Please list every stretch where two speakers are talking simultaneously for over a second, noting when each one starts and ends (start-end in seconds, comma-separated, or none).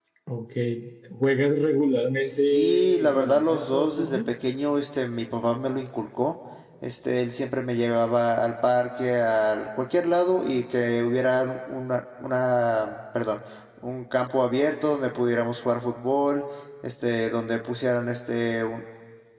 2.2-4.2